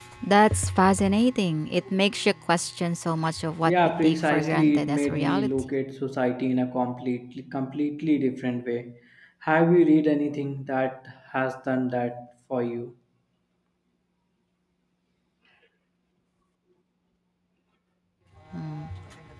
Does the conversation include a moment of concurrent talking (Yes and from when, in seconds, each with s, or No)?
Yes, from 3.7 s